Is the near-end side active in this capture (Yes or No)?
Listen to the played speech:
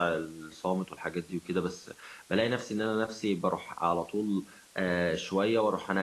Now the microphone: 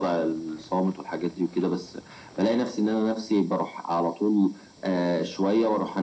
No